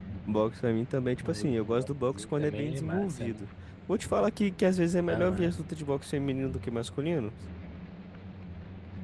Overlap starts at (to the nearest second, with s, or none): 1 s